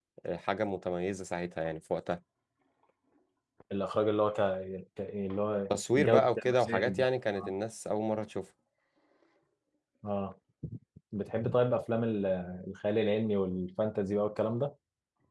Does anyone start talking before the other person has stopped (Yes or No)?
Yes